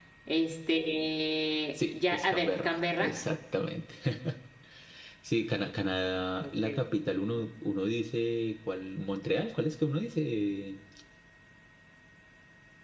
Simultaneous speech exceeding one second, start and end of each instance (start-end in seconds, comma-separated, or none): 1.8-3.1